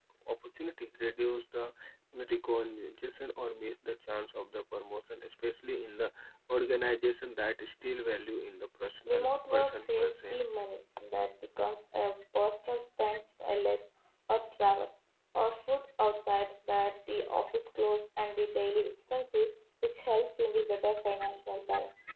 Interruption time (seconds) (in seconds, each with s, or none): 9.1 s